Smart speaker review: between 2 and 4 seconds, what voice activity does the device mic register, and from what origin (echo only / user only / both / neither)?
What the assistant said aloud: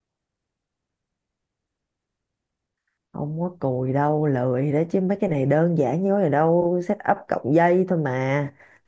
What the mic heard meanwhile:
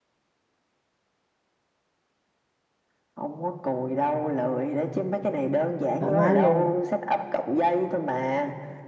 echo only